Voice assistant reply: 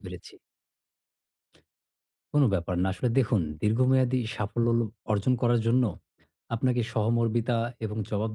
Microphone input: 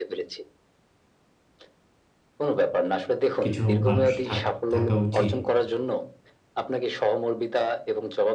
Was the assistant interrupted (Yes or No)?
Yes